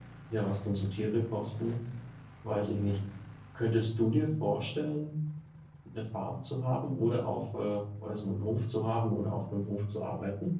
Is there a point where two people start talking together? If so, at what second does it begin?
none

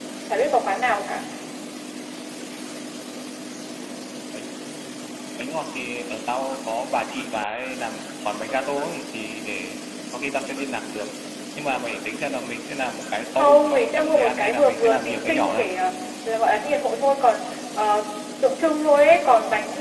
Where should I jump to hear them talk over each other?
13 s

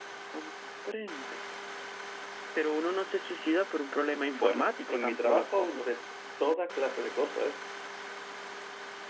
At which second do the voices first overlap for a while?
4 s

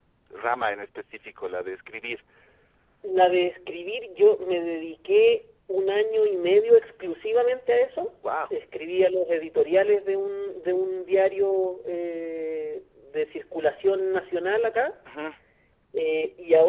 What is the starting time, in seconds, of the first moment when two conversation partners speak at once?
none

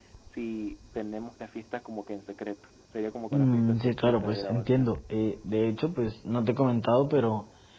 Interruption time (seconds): 3 s

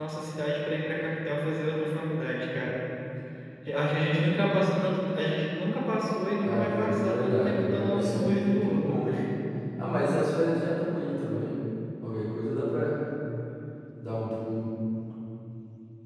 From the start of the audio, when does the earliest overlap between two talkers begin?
6 s

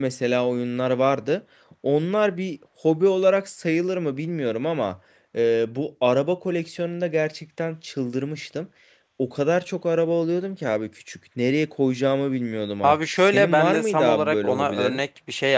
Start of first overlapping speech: 13 s

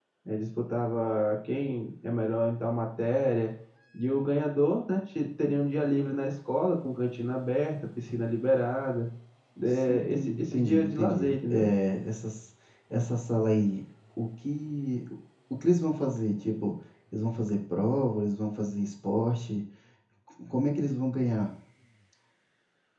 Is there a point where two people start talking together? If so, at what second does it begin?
10 s

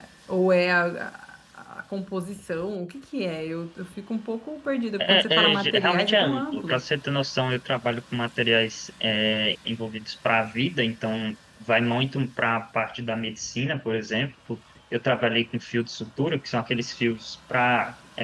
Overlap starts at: 5 s

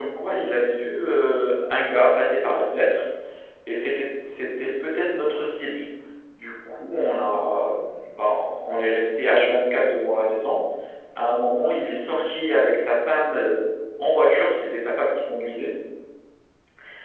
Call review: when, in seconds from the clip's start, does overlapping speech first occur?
none

